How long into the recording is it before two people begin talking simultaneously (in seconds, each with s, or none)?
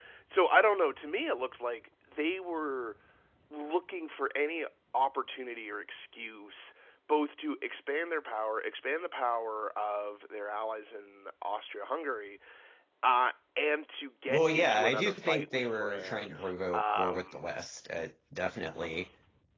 14.3 s